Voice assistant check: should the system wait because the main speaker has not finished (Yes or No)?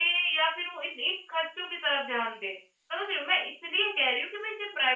Yes